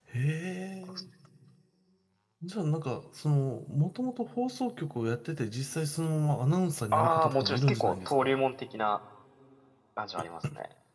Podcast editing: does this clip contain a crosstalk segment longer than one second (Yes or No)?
Yes